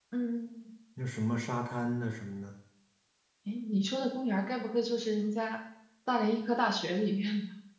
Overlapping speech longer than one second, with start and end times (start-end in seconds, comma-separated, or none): none